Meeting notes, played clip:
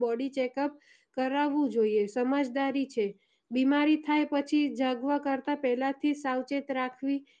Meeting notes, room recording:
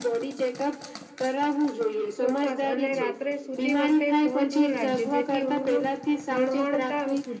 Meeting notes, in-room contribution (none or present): present